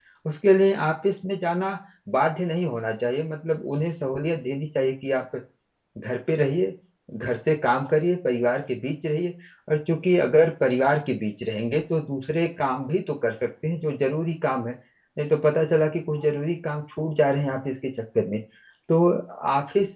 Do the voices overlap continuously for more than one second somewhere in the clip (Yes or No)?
No